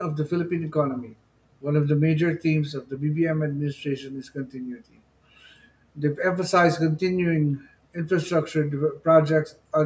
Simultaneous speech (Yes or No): No